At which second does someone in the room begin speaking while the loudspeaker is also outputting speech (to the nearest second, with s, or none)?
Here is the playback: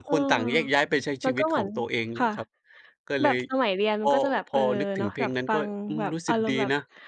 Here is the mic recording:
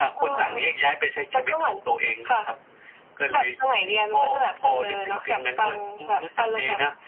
0 s